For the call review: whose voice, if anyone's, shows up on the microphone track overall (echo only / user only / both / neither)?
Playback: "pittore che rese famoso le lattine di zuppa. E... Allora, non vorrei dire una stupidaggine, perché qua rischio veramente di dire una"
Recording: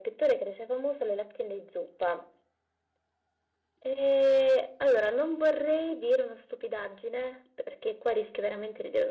echo only